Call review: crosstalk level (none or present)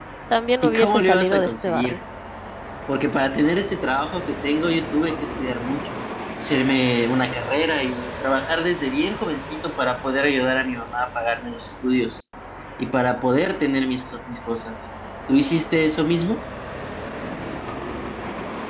present